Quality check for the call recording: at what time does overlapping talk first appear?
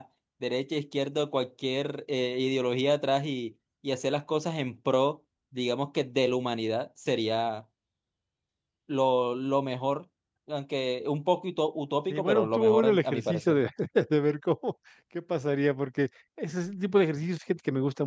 12.1 s

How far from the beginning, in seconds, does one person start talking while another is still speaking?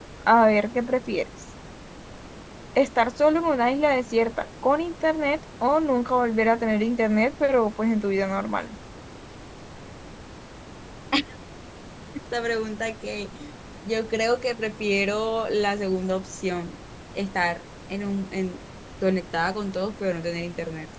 none

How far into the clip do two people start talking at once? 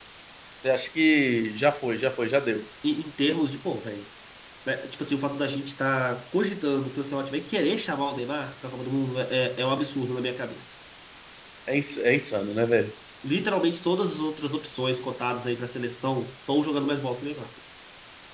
none

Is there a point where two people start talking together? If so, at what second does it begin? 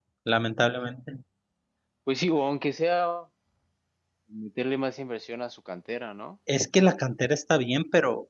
none

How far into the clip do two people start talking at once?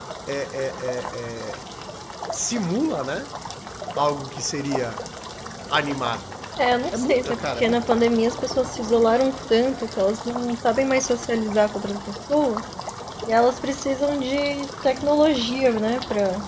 6.9 s

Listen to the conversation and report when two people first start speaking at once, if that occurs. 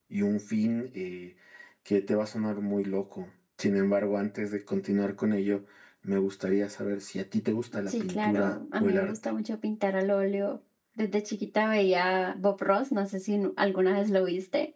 7.9 s

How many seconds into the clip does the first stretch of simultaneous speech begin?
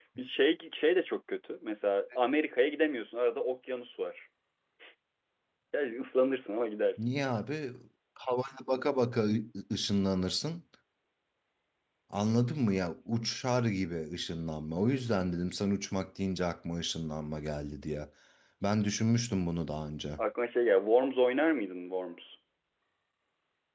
none

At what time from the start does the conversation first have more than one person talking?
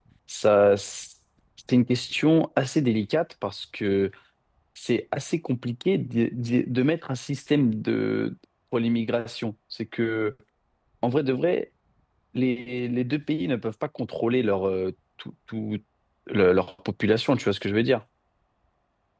none

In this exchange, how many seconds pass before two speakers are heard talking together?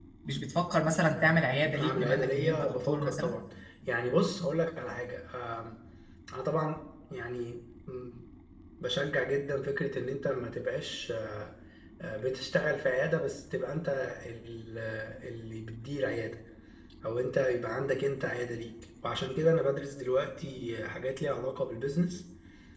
1.6 s

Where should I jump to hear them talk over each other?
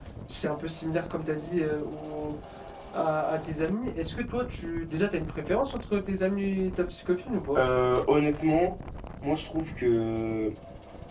none

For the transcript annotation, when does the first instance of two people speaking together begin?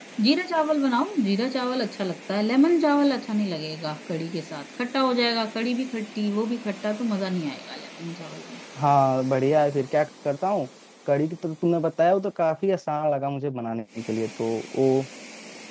none

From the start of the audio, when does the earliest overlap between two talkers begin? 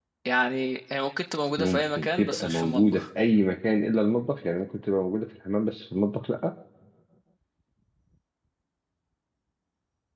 1.6 s

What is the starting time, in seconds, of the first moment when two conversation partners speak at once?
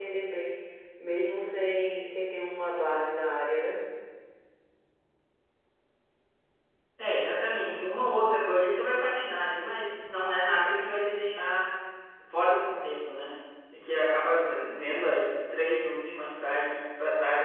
none

